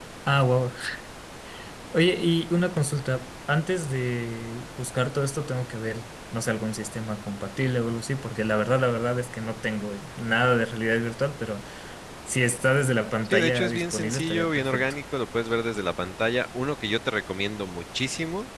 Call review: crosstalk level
present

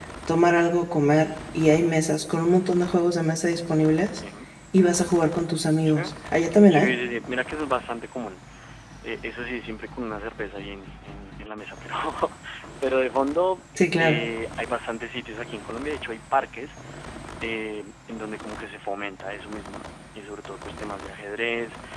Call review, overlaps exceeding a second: none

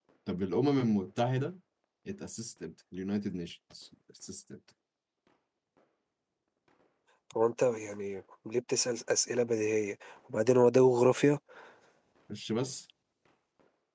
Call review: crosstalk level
none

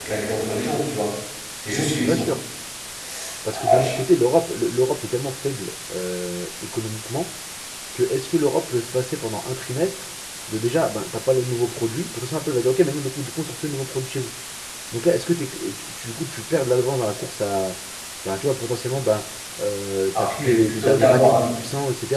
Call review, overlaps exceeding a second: present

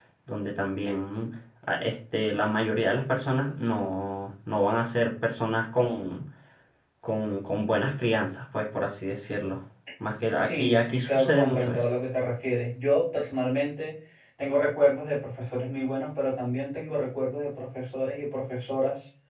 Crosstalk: present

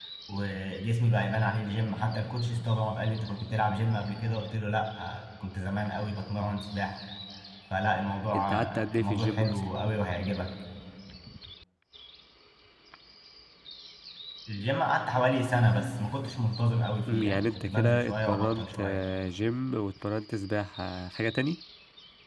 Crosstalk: present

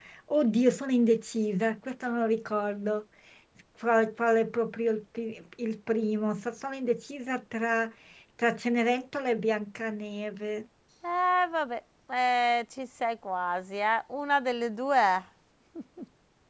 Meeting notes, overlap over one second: none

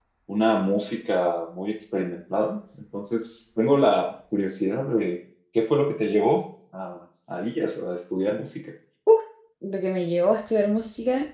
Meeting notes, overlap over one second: none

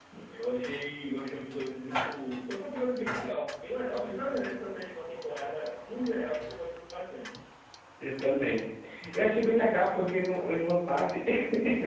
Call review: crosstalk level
none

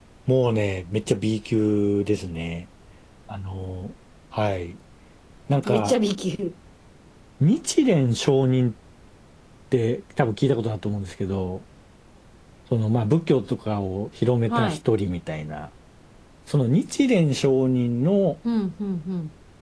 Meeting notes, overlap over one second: none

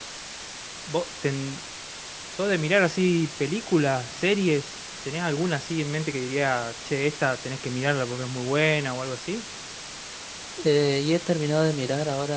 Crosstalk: none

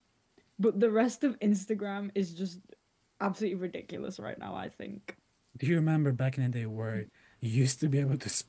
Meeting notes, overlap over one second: none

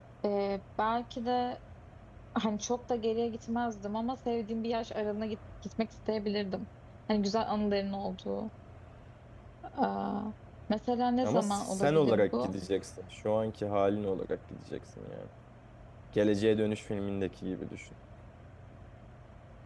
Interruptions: present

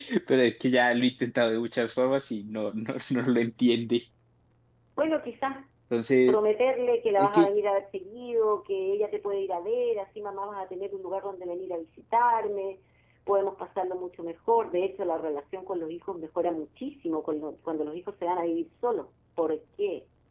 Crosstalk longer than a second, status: none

